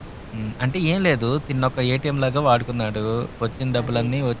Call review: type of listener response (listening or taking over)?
listening